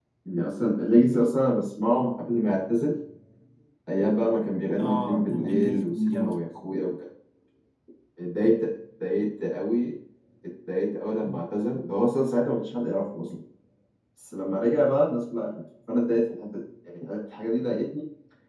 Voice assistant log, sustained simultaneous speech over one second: present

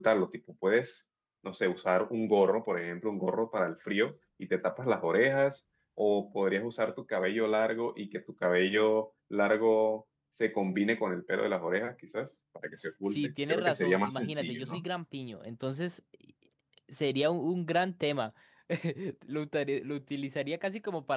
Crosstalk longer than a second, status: present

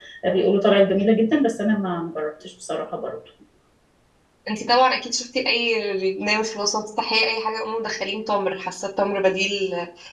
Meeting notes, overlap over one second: none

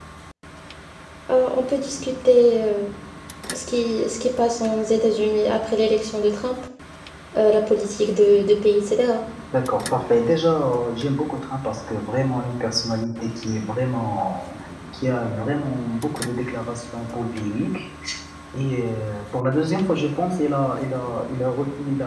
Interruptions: none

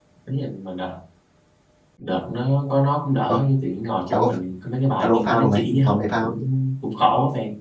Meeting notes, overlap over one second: present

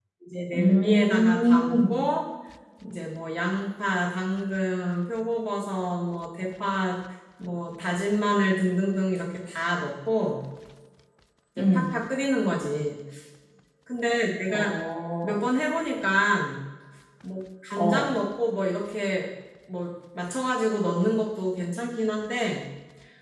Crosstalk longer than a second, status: present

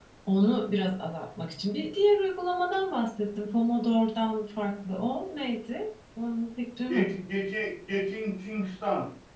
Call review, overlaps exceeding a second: none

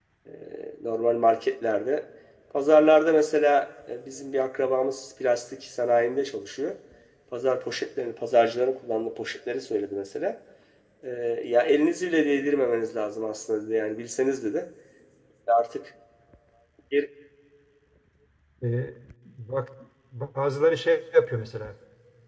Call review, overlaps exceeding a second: none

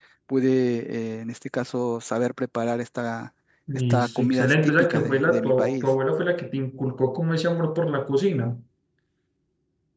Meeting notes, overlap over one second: present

